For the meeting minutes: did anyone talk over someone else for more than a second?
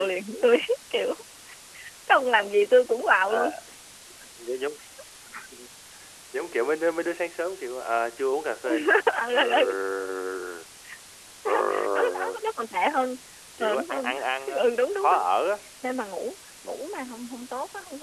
Yes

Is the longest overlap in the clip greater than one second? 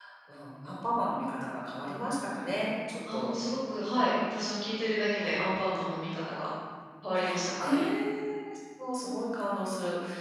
No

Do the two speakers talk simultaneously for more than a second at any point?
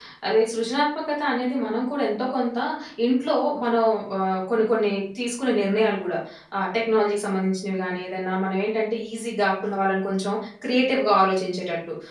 No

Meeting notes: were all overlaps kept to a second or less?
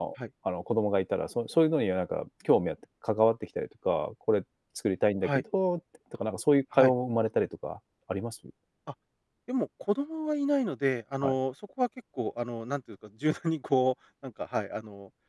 Yes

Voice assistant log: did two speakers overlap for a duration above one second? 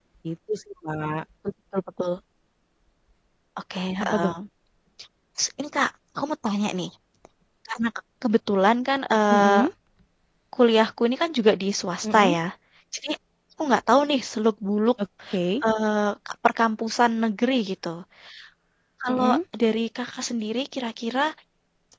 No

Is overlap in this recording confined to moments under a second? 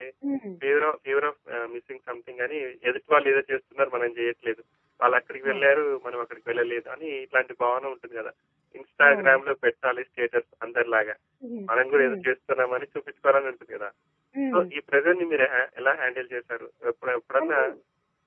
Yes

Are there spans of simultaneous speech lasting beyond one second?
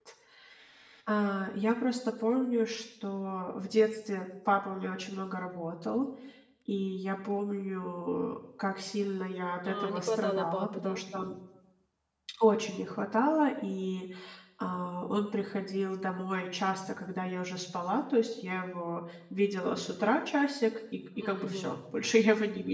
Yes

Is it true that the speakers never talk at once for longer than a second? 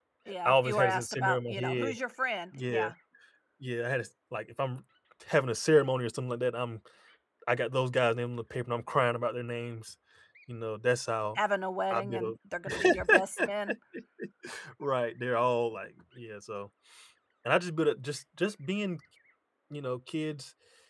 No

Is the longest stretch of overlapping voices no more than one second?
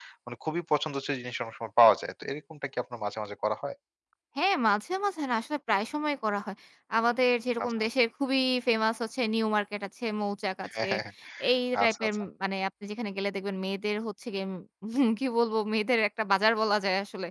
Yes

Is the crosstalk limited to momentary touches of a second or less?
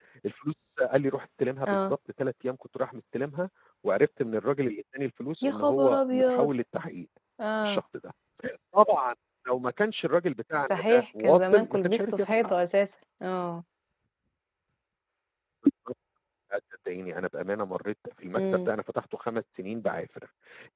No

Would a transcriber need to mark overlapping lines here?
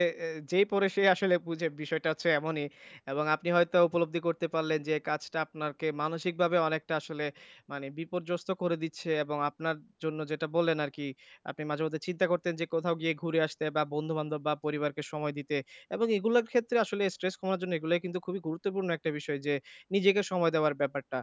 No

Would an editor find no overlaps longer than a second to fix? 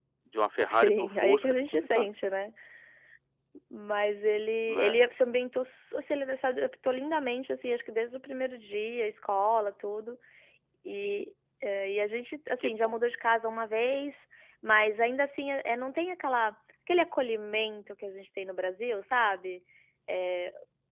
No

